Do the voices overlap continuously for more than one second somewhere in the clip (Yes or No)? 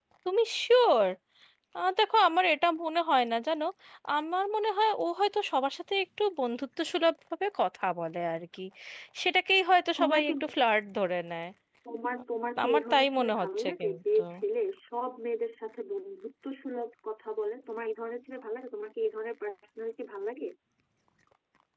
Yes